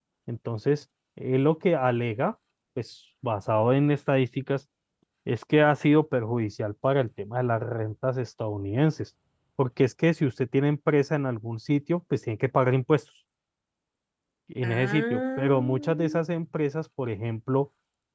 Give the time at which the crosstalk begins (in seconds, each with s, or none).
14.6 s